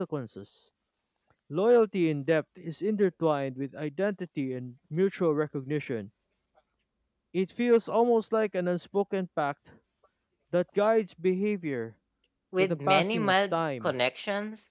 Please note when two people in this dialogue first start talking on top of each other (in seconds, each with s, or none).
12.6 s